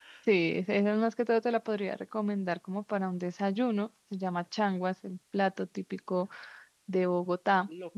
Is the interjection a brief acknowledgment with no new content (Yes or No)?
No